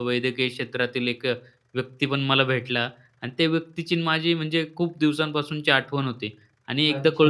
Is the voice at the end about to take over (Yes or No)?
No